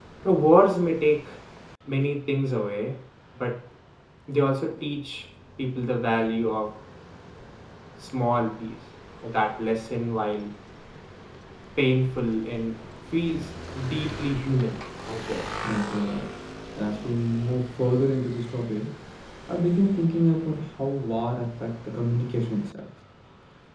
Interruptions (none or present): none